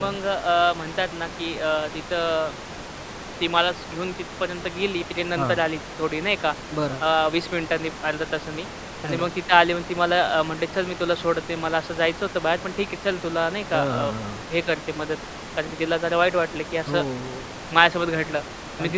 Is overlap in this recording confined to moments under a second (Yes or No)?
Yes